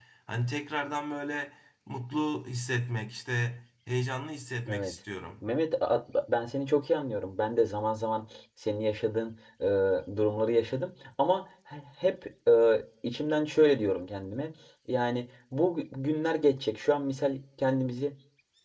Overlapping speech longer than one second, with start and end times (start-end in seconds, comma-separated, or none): none